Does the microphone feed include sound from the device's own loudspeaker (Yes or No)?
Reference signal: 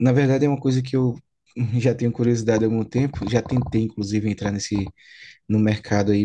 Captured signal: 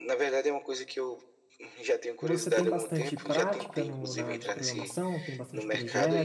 Yes